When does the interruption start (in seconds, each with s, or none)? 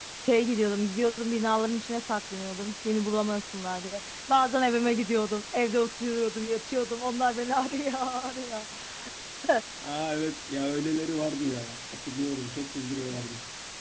none